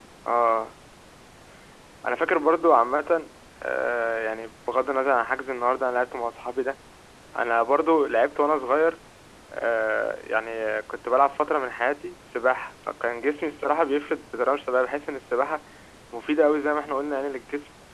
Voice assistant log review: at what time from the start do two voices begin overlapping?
none

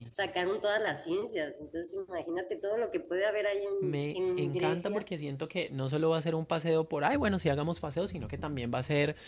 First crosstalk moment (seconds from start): 3.8 s

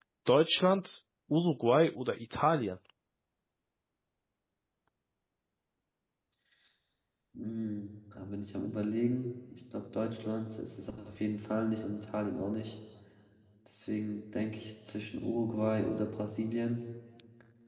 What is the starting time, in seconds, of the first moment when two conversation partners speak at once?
none

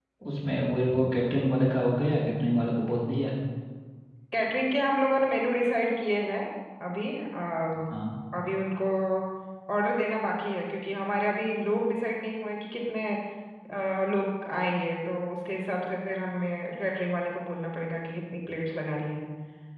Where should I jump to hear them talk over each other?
none

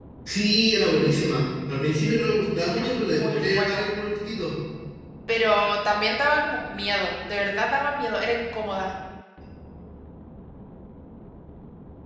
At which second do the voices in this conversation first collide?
2.7 s

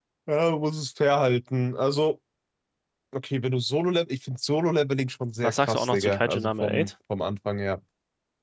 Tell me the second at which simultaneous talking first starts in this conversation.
5.4 s

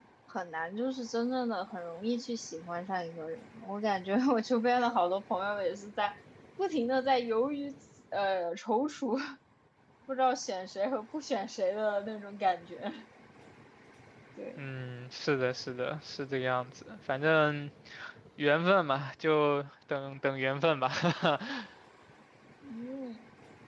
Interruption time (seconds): none

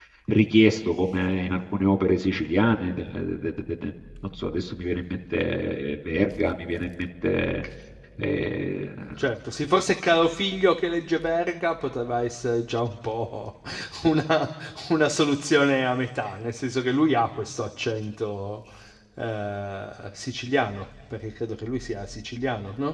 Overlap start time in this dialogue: none

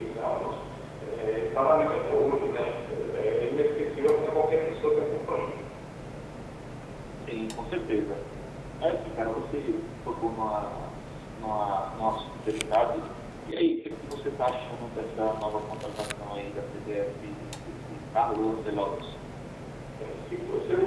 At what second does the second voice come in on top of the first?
none

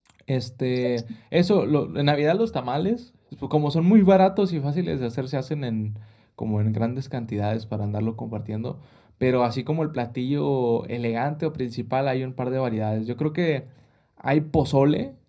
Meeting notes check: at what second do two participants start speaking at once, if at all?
none

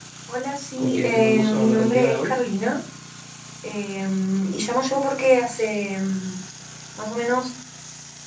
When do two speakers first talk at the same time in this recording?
0.8 s

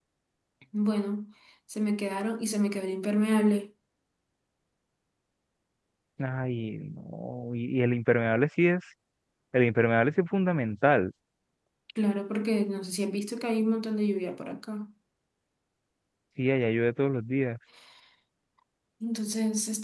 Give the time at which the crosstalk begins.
none

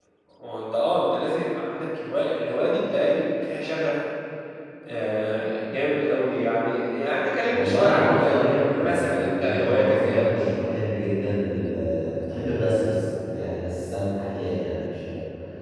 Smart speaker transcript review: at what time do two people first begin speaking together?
7.5 s

